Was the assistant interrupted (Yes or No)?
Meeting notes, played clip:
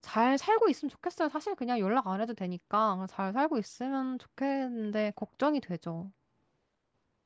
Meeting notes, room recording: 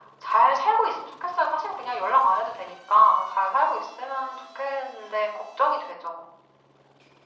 No